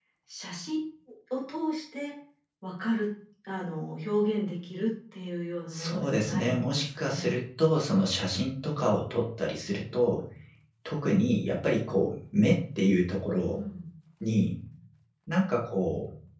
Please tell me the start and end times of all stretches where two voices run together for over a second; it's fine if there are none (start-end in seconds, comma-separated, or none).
5.7-7.3